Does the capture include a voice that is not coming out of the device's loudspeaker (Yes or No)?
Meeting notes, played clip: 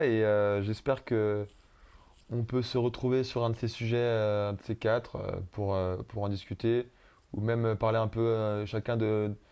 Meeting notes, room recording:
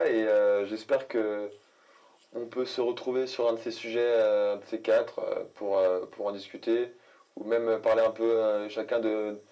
No